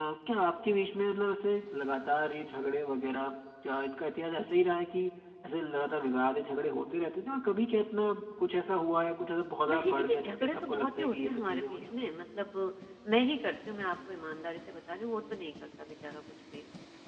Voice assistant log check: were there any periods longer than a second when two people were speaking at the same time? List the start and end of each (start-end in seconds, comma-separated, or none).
9.7-11.9